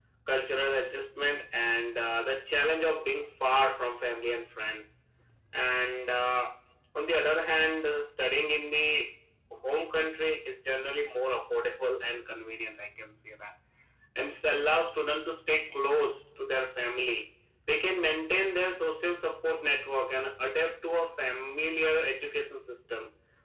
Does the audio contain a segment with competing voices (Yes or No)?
No